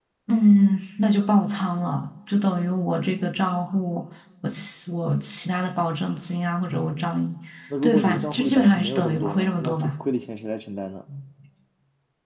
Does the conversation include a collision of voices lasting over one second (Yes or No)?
Yes